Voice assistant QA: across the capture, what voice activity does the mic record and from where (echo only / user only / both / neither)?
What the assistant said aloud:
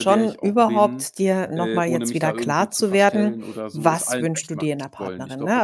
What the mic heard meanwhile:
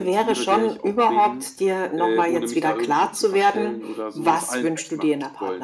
echo only